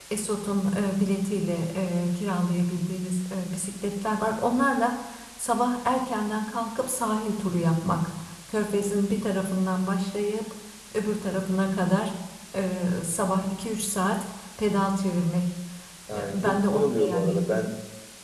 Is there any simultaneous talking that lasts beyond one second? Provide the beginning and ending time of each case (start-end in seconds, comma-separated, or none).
16.1-17.6